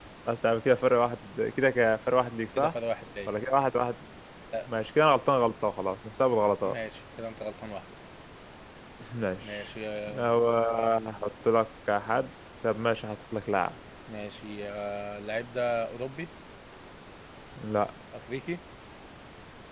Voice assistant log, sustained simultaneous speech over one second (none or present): none